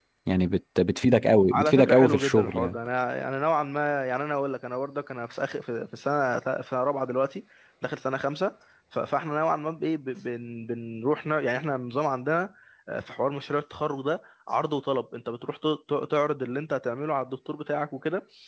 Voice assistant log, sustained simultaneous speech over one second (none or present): present